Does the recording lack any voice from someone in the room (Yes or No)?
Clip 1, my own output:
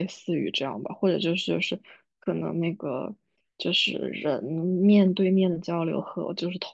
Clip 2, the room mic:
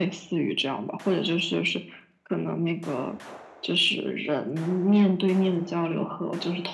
Yes